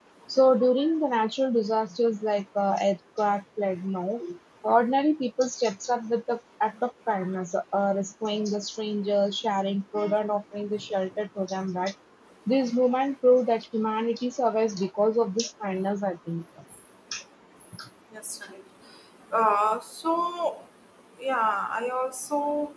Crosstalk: none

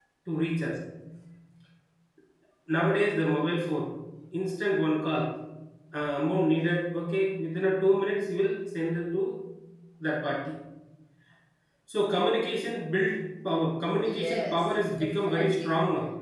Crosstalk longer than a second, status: present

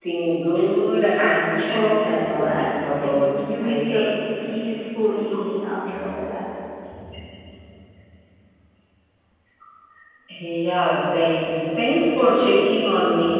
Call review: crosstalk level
present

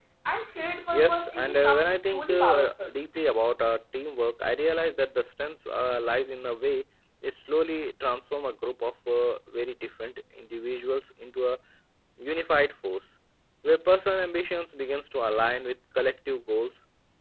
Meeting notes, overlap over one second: present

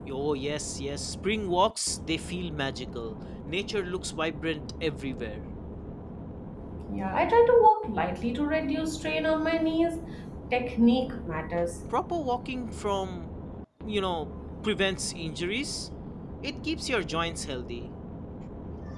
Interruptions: none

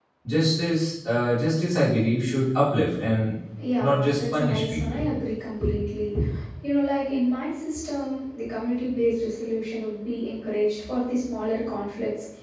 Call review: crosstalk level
present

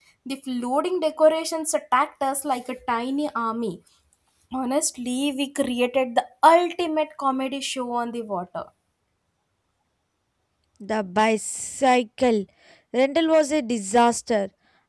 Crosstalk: none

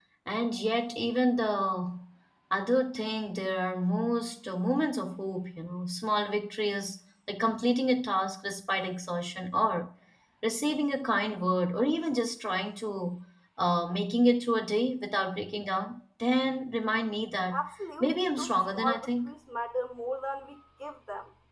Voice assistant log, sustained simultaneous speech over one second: present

